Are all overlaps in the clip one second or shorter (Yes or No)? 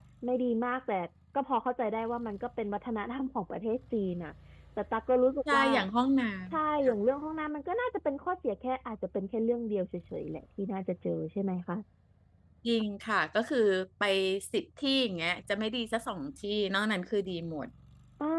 Yes